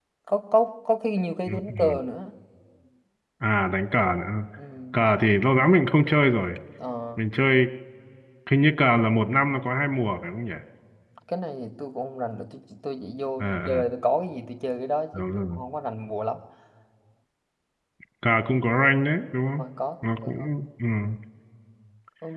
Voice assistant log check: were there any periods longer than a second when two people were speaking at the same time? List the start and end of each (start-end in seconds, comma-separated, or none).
none